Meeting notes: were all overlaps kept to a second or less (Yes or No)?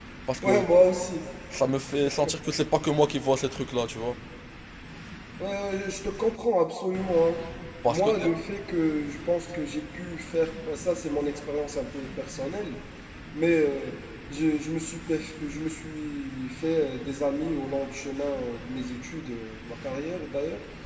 Yes